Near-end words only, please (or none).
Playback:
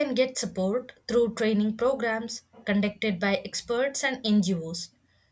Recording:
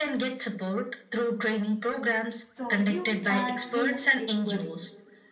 So, youth and women equally.